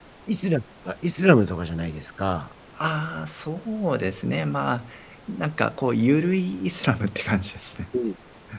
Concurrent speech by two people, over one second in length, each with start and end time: none

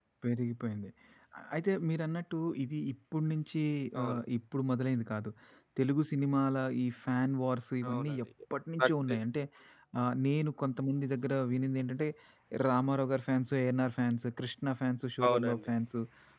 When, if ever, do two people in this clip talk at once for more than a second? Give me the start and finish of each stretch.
none

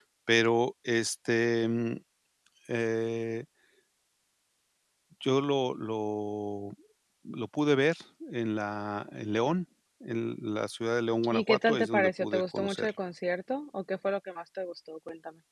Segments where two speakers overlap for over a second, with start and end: 11.3-12.9

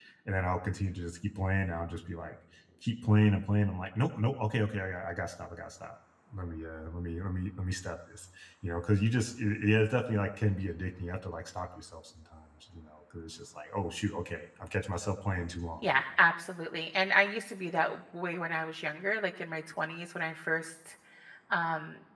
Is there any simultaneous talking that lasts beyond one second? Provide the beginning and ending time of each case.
none

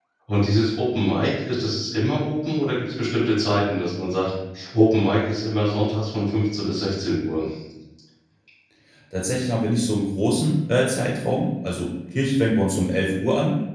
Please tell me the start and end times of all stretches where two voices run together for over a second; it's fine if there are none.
none

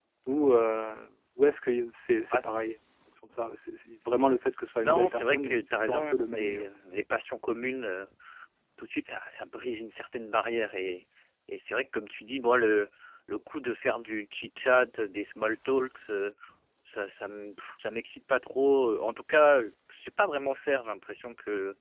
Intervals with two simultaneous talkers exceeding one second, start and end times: 4.8-6.7

